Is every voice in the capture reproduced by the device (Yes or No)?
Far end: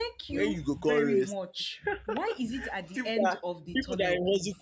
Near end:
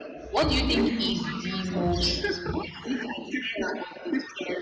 No